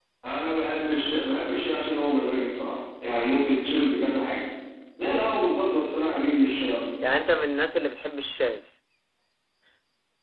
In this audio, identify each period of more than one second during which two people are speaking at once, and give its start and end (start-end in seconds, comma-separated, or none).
none